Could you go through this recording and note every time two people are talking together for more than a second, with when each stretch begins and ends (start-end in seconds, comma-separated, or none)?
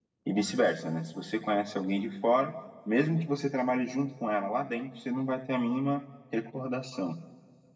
none